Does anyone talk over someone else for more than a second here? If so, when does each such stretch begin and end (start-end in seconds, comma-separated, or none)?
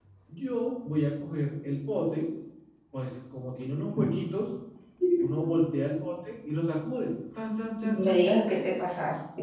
none